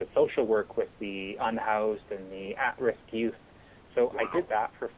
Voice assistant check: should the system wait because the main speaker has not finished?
Yes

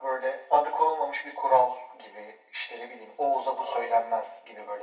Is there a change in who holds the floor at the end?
No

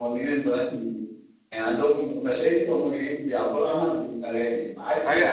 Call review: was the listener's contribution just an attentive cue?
No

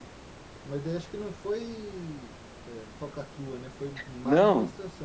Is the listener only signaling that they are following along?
No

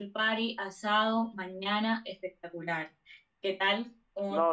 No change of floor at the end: No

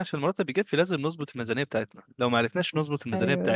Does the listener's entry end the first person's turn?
No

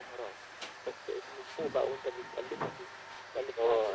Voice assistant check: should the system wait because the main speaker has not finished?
No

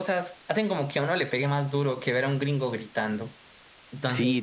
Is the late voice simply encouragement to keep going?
No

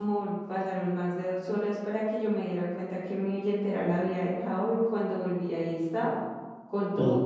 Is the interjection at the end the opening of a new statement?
No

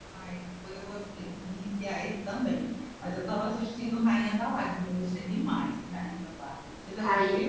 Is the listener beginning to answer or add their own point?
Yes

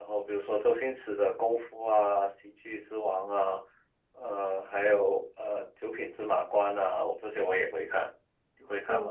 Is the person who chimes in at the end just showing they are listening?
No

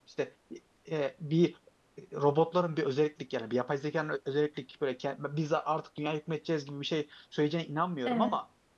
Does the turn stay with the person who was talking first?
Yes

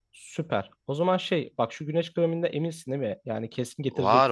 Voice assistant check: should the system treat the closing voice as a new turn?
Yes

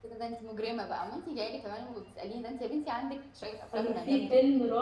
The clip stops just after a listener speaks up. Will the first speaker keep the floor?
No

